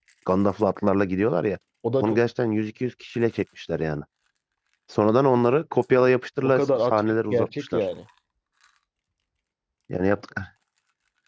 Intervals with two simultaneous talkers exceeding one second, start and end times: 6.4-7.8

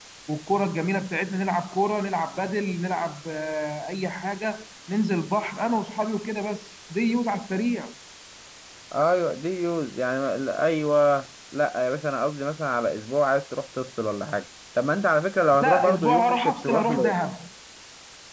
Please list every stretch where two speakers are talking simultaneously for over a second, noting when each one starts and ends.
15.5-17.1

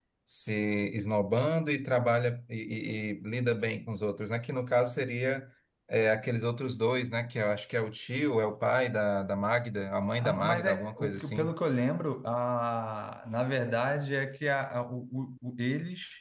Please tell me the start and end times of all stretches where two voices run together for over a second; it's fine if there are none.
10.2-11.5

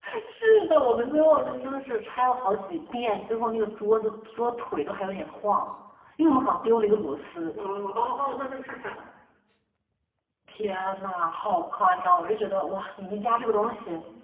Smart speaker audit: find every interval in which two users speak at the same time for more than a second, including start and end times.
none

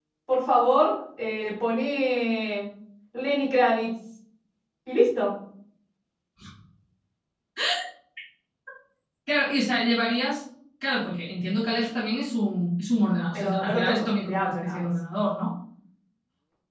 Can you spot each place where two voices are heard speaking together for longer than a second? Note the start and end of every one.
13.3-14.8

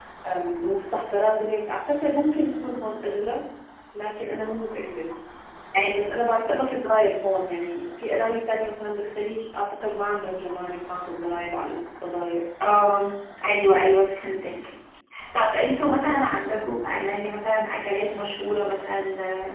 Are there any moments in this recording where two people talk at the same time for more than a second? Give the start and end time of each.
none

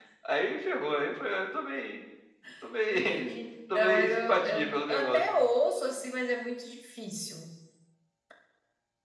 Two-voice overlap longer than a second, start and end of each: 3.7-5.2

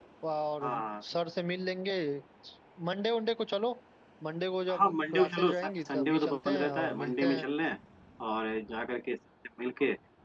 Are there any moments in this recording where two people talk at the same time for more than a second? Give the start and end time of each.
4.7-7.4

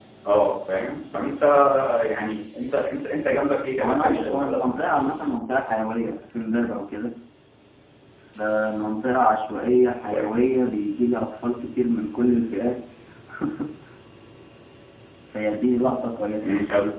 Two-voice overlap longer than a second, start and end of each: 3.8-5.1

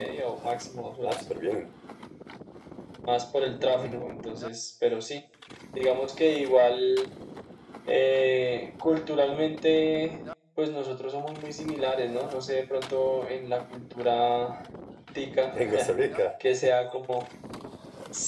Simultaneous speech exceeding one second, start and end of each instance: none

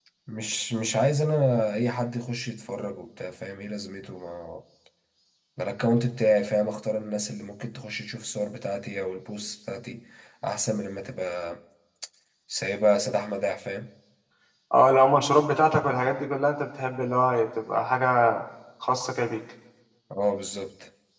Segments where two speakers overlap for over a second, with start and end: none

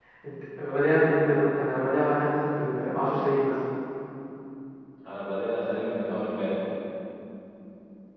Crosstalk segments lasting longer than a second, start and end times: none

